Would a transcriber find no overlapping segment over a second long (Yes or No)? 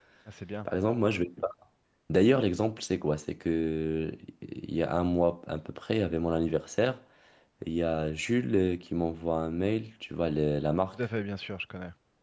Yes